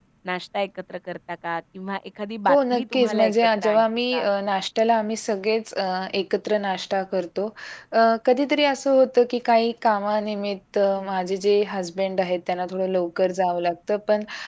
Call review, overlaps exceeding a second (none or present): present